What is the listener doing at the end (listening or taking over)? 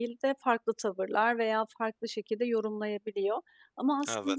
listening